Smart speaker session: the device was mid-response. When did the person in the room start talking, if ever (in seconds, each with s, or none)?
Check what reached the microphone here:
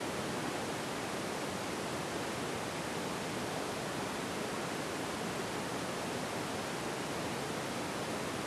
none